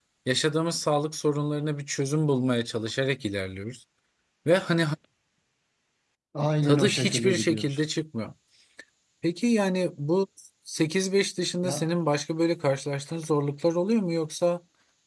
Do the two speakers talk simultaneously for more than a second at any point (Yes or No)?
Yes